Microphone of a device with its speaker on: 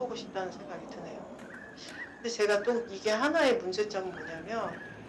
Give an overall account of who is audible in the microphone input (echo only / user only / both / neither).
echo only